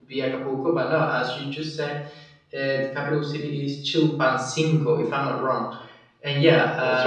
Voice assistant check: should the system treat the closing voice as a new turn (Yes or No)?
No